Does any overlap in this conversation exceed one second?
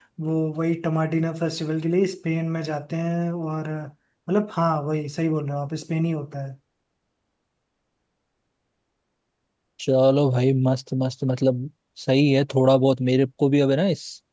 No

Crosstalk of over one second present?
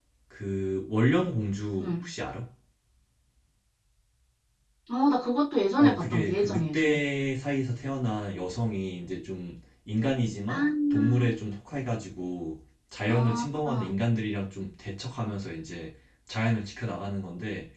Yes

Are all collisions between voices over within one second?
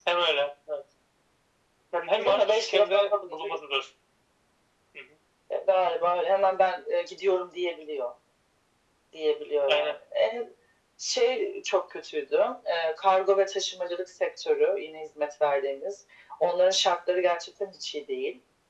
No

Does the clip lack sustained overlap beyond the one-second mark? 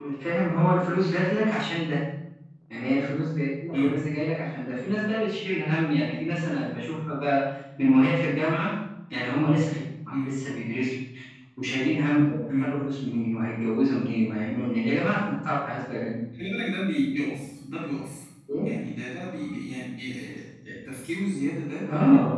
Yes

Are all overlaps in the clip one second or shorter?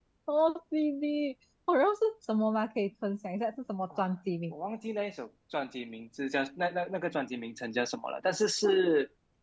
Yes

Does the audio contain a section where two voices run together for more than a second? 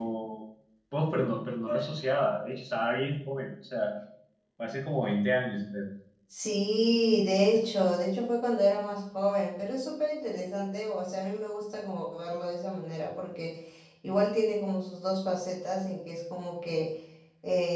No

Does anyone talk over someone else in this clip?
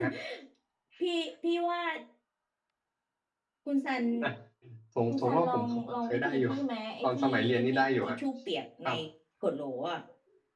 Yes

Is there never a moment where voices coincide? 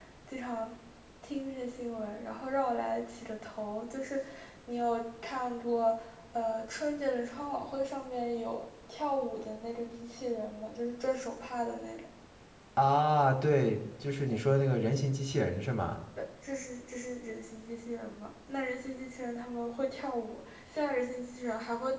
Yes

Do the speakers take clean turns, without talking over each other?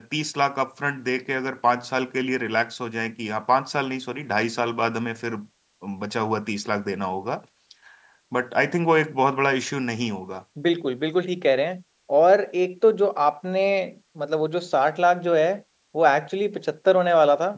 Yes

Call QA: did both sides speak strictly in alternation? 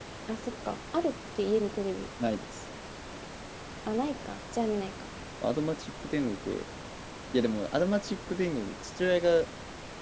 Yes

